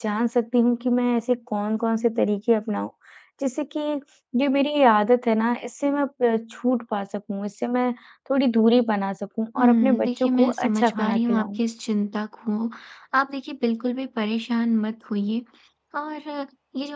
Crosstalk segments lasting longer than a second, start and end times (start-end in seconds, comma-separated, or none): 9.6-11.6